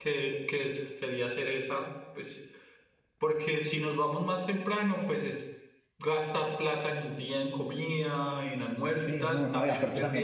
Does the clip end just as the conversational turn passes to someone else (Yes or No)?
Yes